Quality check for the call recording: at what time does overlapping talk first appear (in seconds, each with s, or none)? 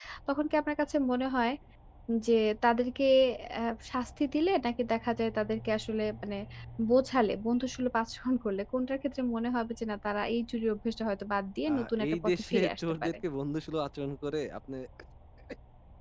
11.7 s